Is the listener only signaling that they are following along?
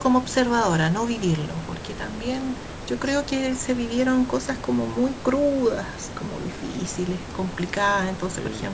Yes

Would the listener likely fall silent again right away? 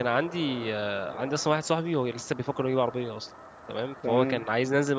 Yes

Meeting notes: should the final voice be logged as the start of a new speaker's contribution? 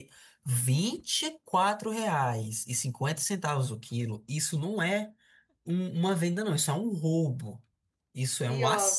No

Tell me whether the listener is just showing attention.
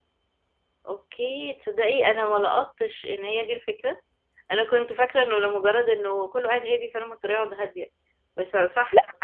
Yes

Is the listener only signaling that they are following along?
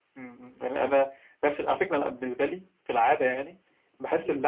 Yes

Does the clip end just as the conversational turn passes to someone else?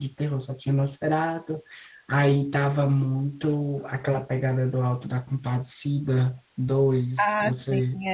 Yes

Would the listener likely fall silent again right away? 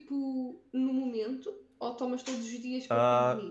No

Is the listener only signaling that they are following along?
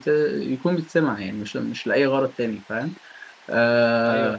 No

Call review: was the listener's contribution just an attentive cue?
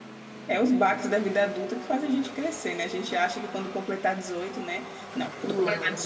Yes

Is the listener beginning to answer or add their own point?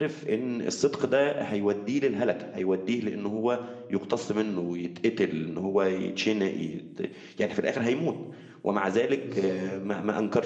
No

